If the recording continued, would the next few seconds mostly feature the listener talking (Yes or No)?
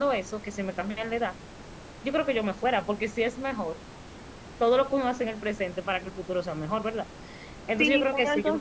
Yes